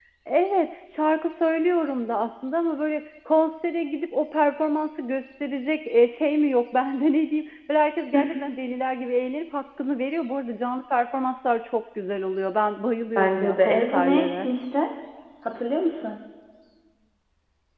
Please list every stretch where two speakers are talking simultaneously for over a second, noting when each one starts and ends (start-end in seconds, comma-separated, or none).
13.2-14.5